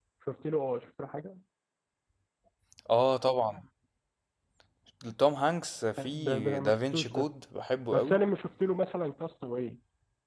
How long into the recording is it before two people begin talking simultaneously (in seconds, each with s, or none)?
6.0 s